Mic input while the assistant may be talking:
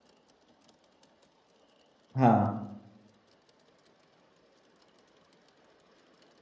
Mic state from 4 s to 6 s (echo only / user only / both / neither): neither